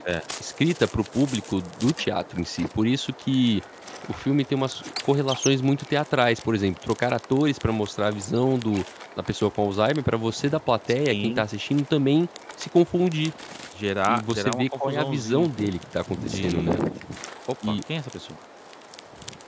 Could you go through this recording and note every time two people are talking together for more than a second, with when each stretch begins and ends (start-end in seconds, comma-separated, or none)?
14.1-15.5